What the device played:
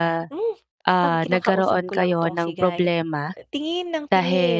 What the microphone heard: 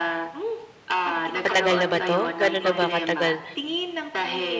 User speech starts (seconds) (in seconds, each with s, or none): 1.4 s